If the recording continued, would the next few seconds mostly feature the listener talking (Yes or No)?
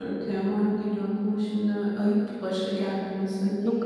Yes